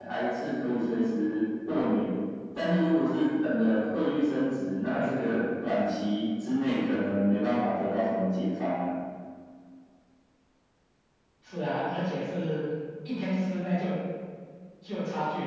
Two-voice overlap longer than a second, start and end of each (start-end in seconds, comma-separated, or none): none